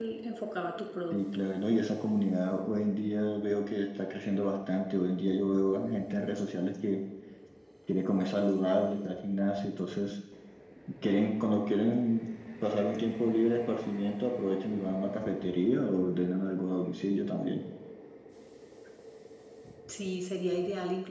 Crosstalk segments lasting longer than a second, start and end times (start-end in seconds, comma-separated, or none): none